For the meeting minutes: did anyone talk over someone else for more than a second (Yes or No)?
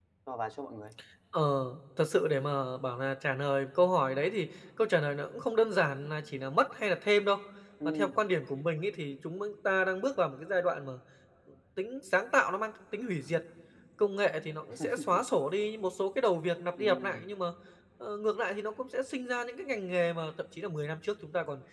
No